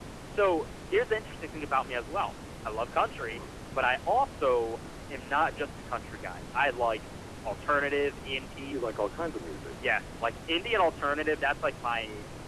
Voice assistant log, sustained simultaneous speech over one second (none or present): none